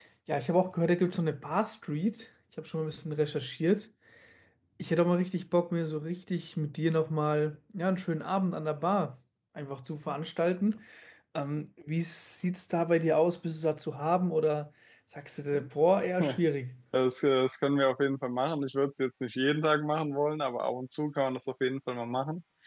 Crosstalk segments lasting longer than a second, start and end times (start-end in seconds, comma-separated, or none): none